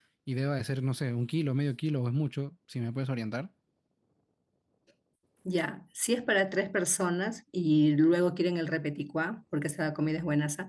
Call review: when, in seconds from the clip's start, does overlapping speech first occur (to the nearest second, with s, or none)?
none